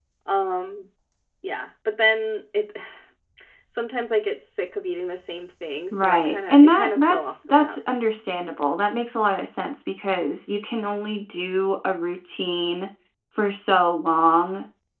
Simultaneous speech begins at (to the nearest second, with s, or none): 6 s